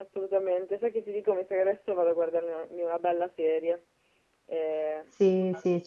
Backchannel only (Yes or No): No